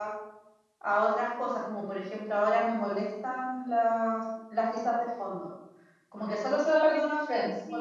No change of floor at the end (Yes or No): Yes